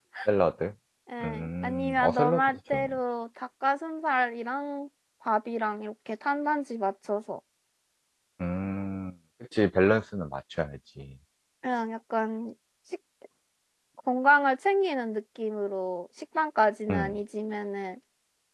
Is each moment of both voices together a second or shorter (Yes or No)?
No